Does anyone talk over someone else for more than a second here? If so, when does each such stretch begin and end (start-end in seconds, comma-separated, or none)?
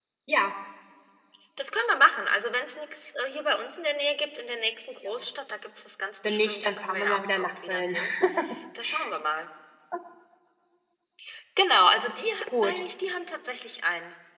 6.3-8.0